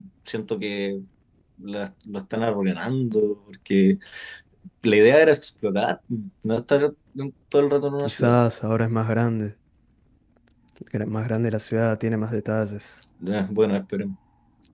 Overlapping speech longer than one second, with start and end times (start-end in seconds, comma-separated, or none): none